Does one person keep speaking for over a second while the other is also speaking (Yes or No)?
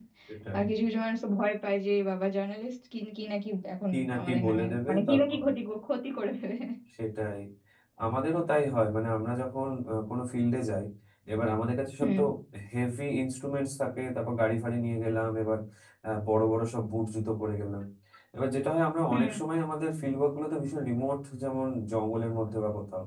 Yes